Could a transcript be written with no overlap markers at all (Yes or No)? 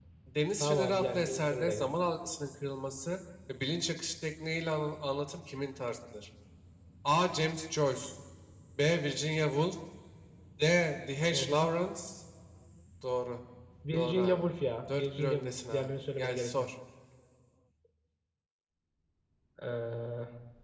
No